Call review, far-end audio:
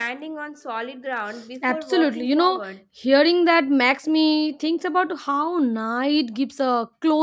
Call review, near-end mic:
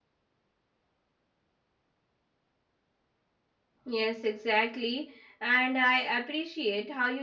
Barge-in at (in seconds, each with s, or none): 3.9 s